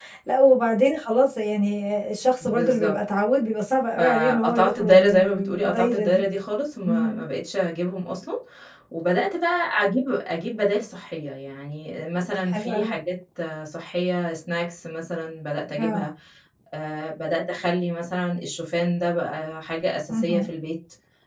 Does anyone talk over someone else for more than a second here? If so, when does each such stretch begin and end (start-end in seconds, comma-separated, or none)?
4.0-6.2